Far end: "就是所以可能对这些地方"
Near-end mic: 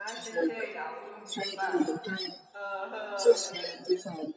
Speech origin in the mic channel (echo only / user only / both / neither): both